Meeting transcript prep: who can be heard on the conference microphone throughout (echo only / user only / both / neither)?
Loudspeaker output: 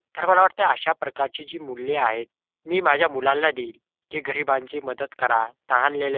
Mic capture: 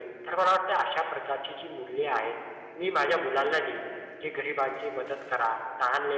echo only